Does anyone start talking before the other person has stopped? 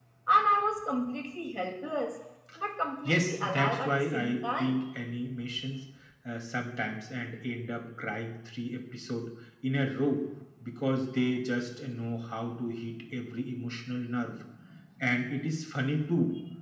Yes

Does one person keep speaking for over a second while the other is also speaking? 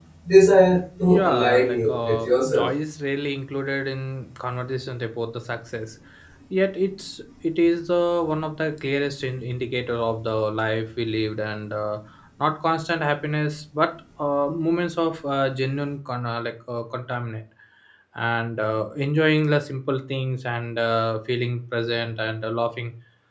Yes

